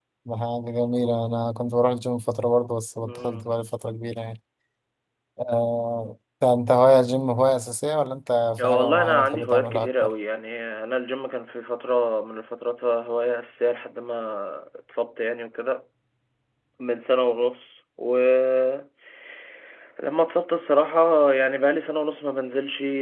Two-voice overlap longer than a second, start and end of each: 8.6-10.1

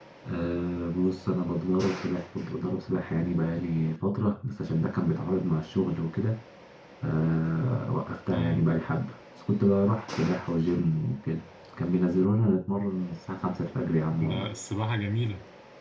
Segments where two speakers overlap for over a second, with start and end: none

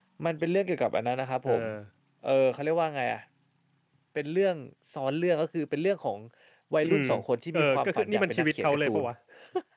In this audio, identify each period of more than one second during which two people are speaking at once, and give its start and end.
7.5-9.0

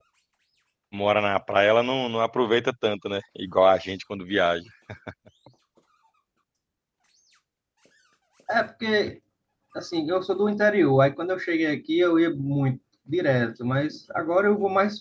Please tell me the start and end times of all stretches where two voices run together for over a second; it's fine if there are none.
none

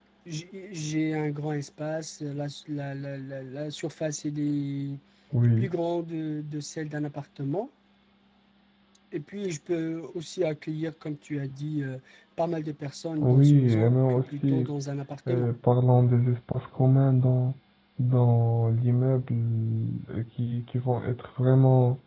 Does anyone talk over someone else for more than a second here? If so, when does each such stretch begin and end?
13.2-14.6

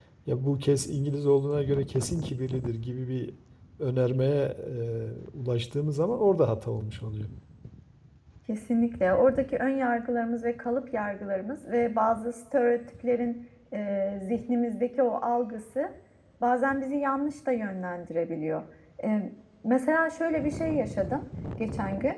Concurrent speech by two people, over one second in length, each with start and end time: none

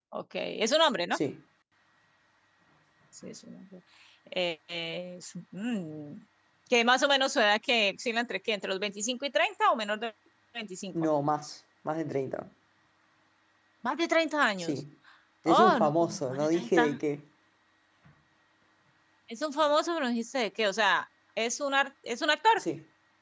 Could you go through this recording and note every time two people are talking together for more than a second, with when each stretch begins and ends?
15.5-17.0

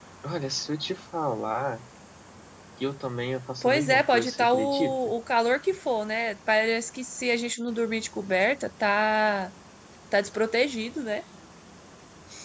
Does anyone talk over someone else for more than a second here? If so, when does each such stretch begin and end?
3.6-5.1

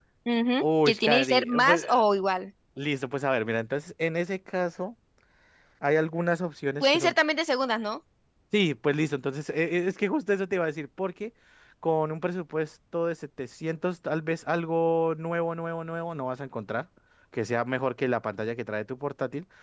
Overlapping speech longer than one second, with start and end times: 0.6-2.0

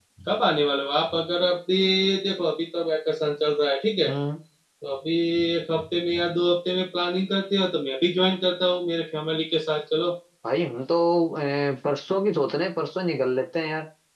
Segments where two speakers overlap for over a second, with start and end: none

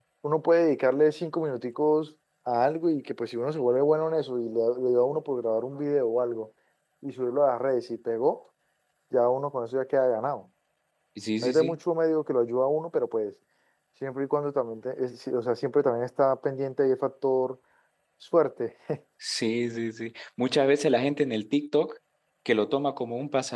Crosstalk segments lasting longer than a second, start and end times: none

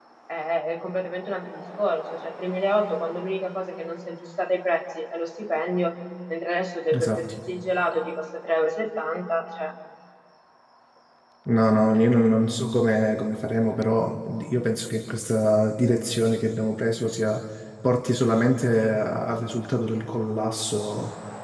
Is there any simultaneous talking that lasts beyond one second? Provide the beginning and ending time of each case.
none

